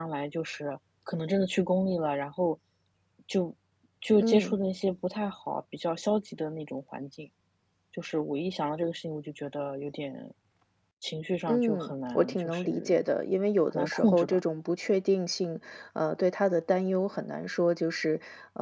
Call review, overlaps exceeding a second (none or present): present